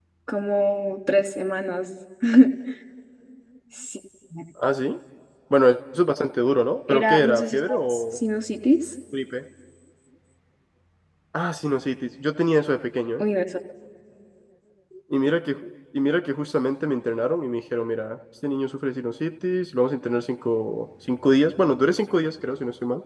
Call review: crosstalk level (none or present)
present